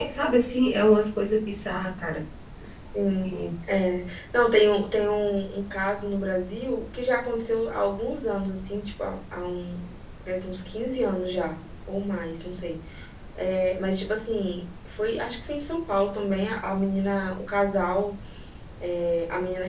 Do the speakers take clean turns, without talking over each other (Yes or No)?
Yes